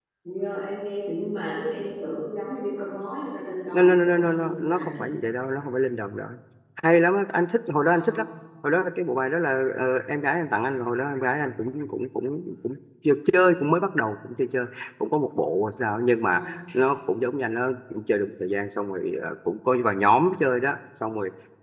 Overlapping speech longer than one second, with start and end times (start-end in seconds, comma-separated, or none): 3.7-5.0